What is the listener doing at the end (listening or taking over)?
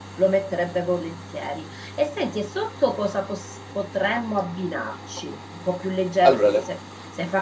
listening